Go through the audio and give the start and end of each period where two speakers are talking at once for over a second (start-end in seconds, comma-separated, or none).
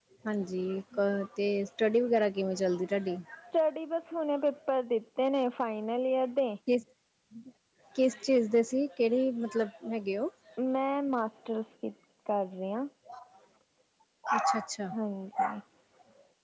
none